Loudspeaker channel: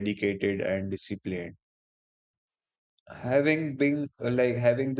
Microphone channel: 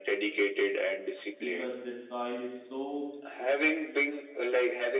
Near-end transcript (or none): because the soil is so